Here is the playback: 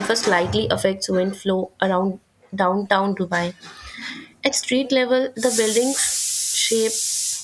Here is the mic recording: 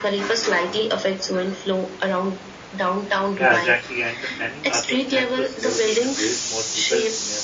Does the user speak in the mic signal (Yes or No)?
Yes